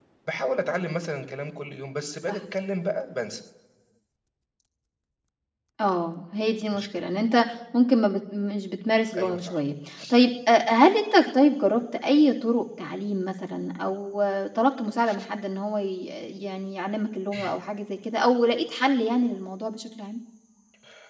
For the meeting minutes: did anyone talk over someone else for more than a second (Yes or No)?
No